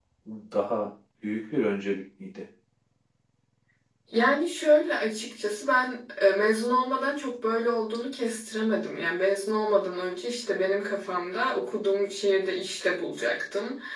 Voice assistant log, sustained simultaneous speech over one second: none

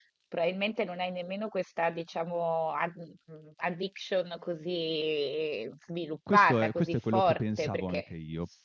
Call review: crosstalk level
present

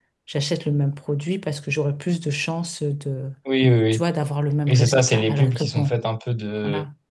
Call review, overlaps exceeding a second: present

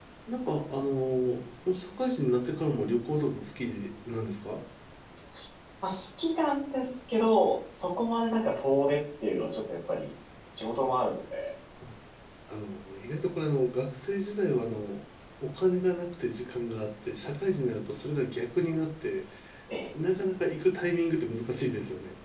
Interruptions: none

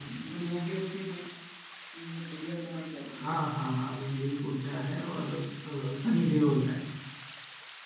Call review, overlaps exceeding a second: none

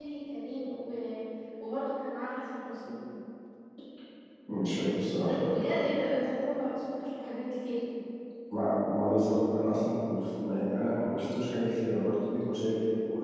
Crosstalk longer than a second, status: none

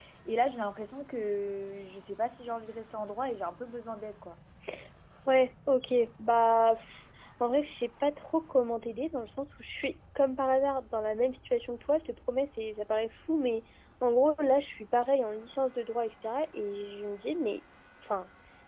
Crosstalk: none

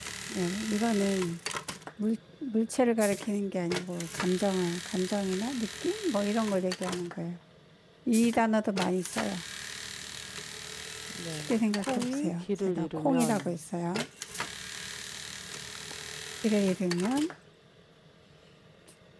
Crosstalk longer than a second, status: present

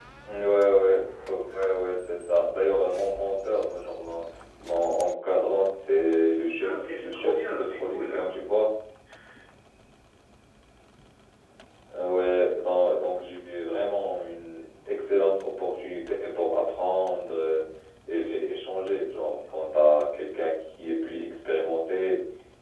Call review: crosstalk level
present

